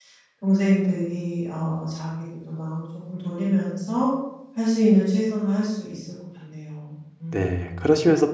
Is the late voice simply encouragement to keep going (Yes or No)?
No